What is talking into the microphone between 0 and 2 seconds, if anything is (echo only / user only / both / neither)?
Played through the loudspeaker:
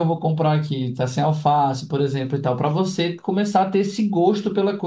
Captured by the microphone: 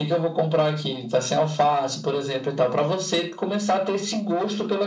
echo only